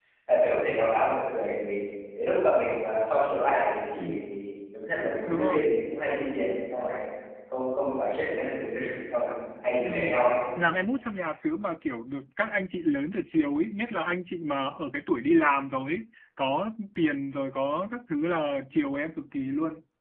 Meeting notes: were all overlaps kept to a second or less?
Yes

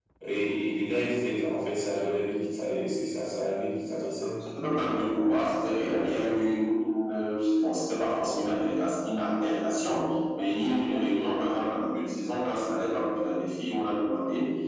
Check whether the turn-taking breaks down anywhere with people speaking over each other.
No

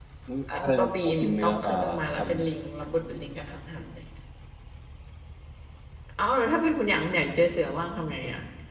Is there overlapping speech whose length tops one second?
Yes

